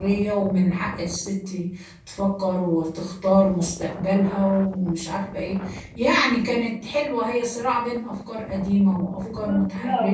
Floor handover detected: Yes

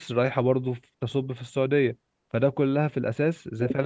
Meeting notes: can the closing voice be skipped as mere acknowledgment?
Yes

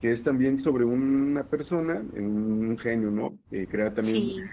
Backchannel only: Yes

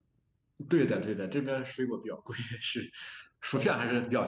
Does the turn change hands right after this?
No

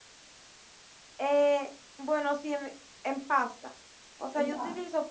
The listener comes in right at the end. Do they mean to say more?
No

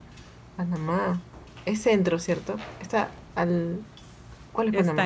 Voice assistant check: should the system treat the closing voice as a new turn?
Yes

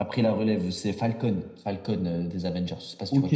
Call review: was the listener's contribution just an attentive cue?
No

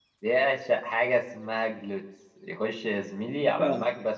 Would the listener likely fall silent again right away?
Yes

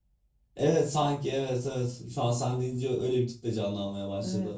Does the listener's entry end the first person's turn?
Yes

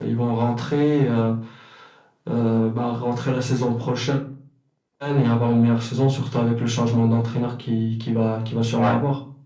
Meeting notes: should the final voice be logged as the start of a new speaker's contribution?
Yes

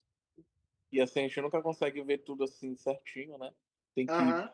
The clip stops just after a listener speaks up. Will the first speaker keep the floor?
Yes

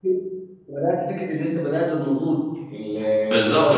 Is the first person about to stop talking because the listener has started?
Yes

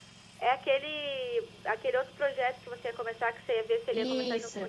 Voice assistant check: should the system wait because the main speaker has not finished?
No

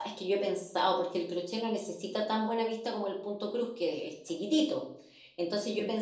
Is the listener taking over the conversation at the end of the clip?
No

